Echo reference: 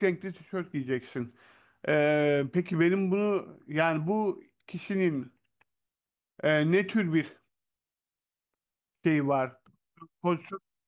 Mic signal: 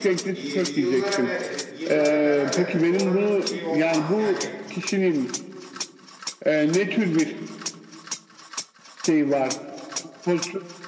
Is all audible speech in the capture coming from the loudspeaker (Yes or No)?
No